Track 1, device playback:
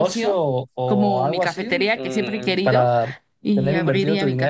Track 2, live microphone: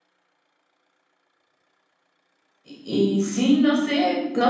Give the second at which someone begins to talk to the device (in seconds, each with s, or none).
2.7 s